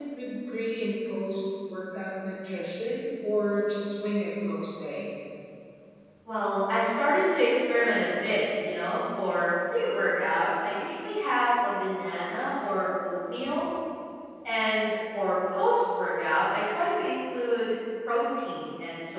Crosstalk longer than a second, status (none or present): none